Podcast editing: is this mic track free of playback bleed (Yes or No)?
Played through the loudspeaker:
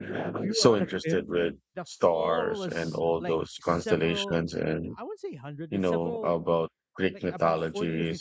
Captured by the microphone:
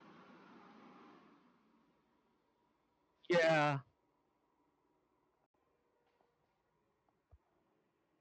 Yes